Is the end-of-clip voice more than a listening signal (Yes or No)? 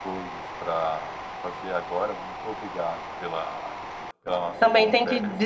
Yes